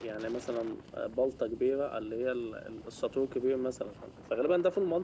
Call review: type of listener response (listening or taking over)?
listening